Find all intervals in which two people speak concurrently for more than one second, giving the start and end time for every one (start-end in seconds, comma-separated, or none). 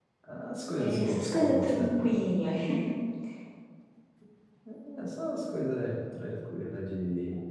0.8-2.1